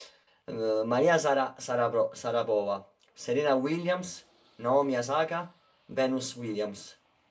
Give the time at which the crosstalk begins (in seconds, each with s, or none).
none